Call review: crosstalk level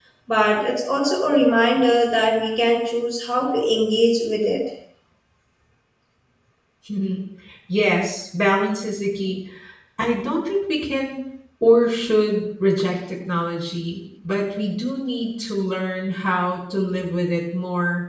none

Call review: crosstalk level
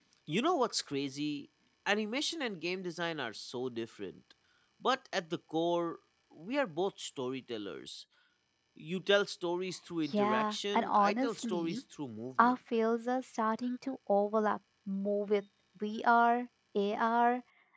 present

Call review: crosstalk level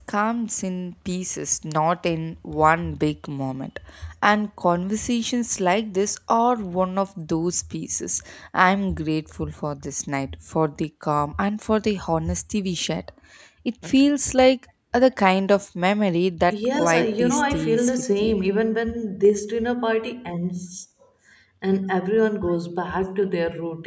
present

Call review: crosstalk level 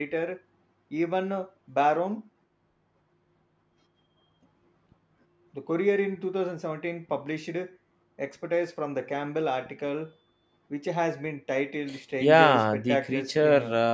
present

